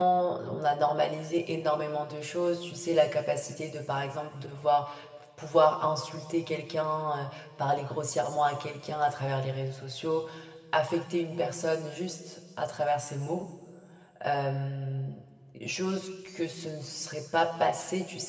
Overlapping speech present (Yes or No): No